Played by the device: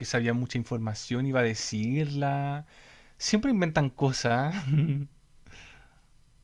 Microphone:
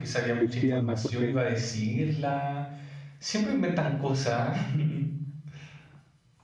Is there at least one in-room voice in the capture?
Yes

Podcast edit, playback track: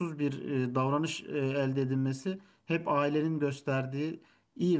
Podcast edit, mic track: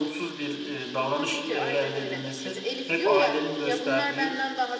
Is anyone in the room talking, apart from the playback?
Yes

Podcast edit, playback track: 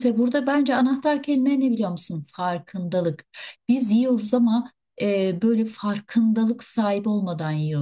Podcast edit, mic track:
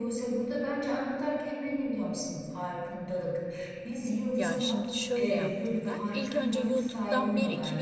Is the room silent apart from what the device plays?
No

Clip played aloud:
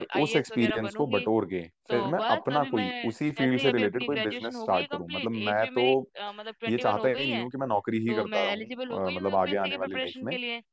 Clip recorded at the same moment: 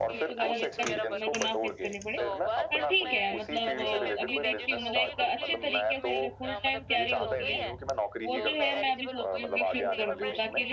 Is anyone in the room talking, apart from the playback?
Yes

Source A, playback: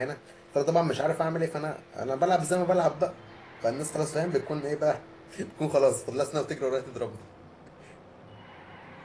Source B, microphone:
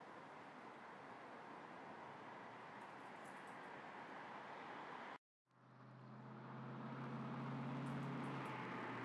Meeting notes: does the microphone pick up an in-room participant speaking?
No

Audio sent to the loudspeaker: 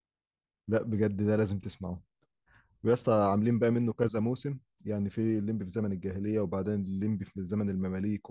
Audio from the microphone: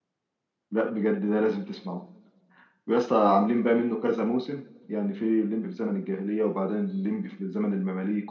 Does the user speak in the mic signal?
No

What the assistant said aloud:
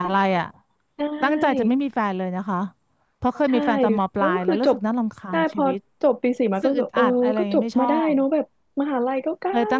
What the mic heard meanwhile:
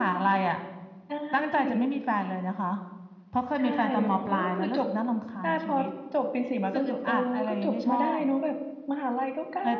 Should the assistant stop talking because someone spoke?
No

